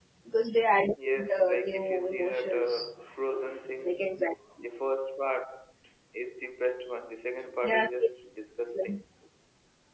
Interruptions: present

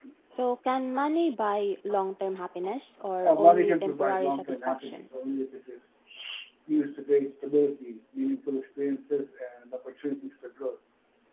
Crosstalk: present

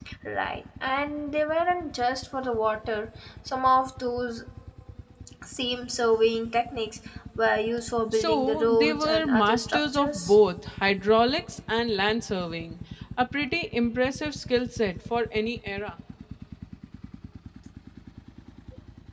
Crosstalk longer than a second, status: present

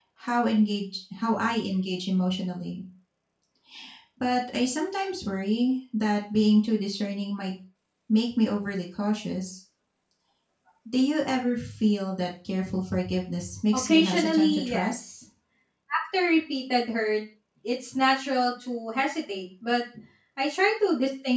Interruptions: present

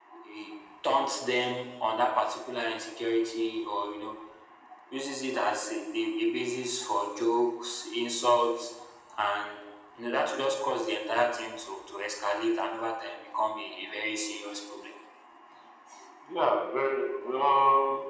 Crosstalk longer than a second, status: none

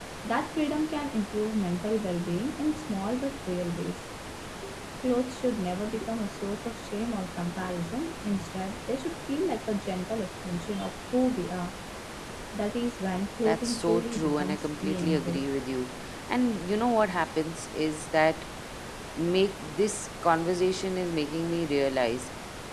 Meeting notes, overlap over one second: present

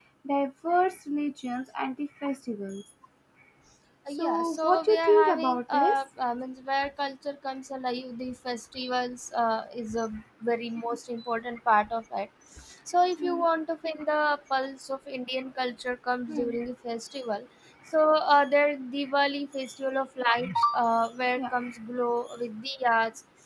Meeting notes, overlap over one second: present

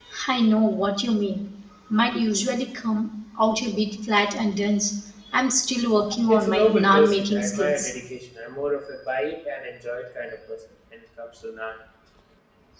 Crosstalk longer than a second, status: present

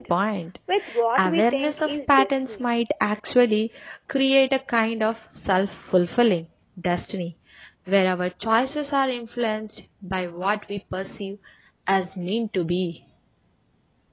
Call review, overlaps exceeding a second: present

